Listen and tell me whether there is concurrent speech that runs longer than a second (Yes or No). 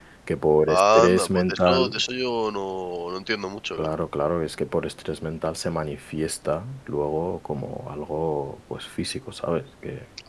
Yes